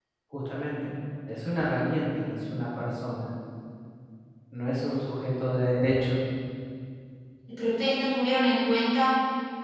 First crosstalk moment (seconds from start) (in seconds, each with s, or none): none